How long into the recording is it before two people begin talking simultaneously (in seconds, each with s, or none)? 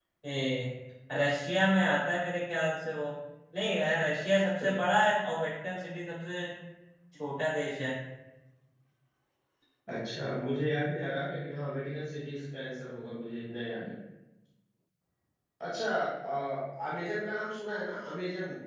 none